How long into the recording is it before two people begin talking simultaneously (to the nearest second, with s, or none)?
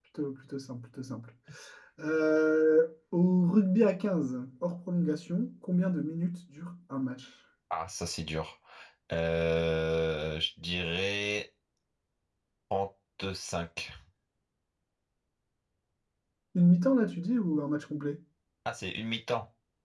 none